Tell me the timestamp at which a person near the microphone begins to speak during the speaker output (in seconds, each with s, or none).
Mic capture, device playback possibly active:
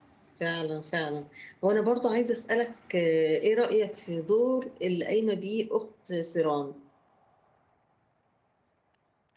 0.3 s